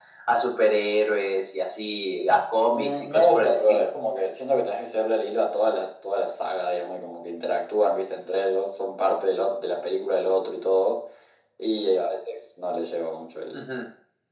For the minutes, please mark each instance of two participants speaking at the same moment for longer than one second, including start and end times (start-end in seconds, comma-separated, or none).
2.7-3.9